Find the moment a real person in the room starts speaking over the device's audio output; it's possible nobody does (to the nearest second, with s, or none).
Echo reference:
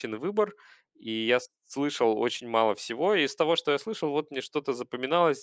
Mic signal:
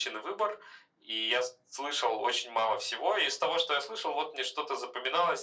none